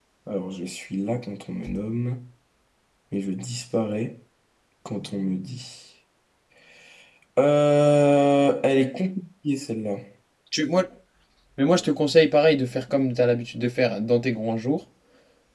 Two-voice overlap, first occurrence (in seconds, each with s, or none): none